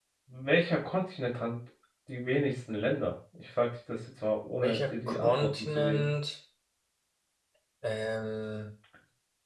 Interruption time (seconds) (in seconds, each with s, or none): 4.6 s